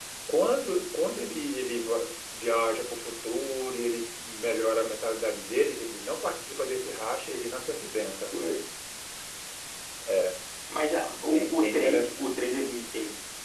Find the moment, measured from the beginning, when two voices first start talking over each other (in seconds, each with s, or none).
11.2 s